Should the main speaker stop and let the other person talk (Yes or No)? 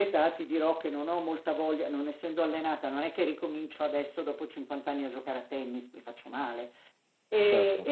No